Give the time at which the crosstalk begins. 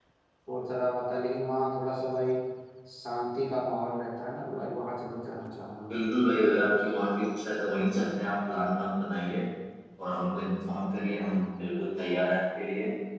none

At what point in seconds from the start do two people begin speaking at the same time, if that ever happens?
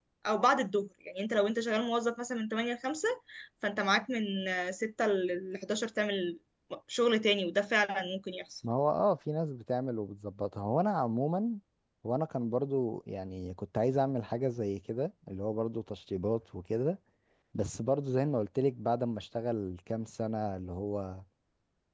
none

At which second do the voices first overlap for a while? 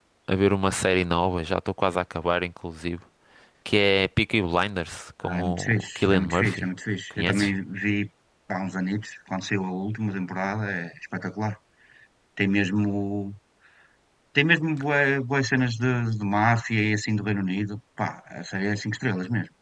5.2 s

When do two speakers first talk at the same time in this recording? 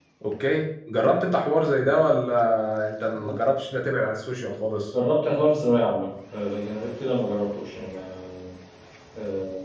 none

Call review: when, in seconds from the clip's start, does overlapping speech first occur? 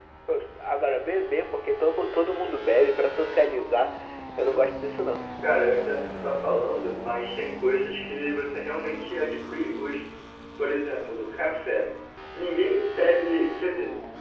none

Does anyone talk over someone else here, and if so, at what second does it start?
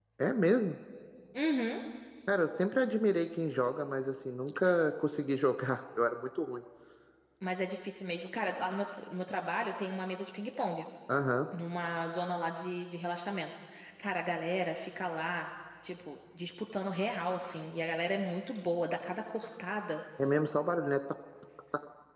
none

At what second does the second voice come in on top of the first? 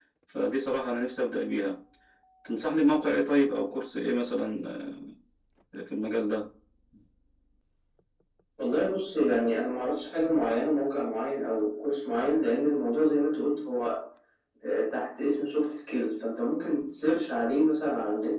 none

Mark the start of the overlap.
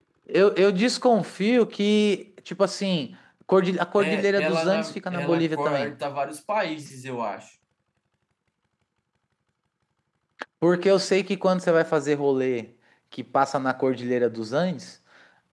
4.0 s

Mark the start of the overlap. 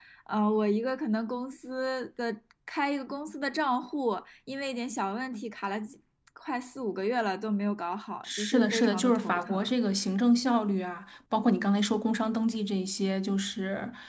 8.2 s

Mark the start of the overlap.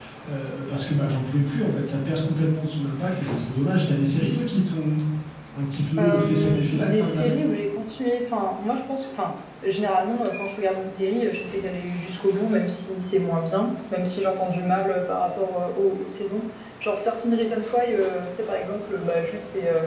6.0 s

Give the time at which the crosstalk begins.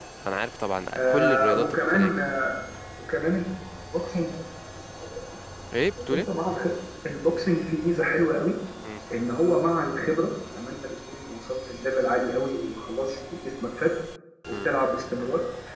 1.0 s

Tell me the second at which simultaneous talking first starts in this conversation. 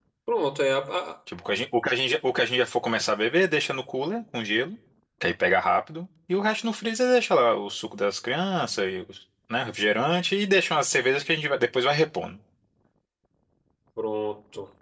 none

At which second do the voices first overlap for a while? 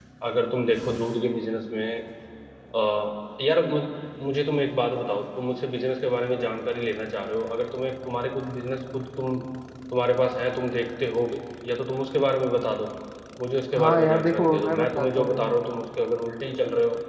13.8 s

